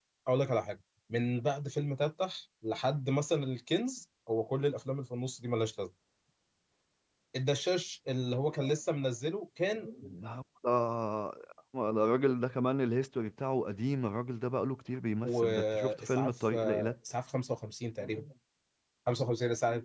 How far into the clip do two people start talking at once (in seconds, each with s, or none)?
15.2 s